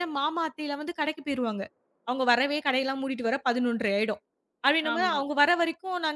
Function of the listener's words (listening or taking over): listening